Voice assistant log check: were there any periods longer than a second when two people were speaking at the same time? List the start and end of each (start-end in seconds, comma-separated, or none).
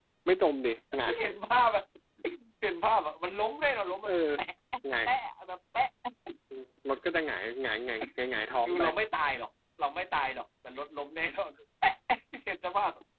none